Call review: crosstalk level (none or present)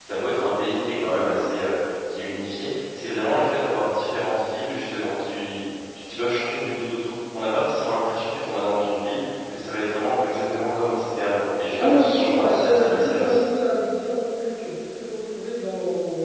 present